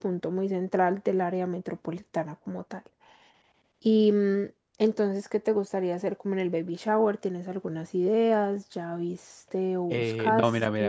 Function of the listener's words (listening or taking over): taking over